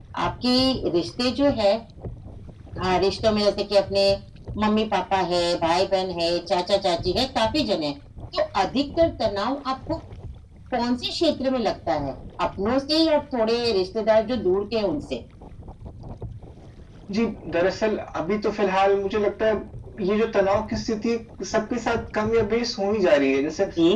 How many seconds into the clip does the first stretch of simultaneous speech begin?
none

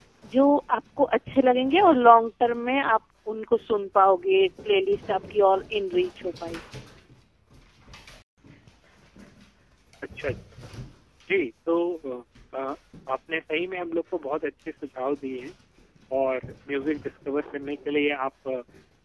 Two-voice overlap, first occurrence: none

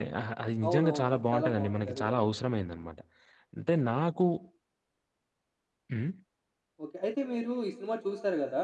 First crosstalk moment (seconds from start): 1 s

